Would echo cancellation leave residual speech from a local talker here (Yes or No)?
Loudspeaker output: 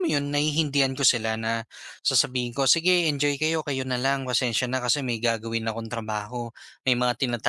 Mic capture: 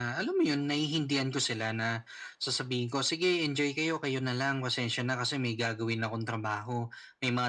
No